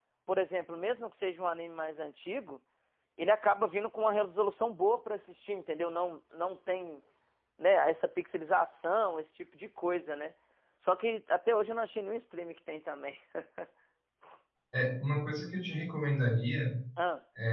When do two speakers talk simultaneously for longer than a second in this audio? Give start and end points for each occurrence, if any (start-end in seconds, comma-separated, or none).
none